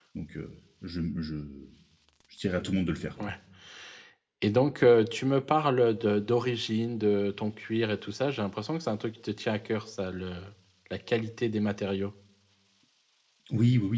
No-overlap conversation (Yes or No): Yes